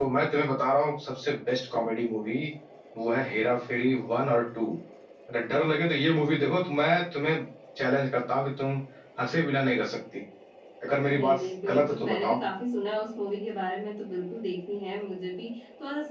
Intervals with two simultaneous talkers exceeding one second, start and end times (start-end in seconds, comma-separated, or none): 11.1-12.4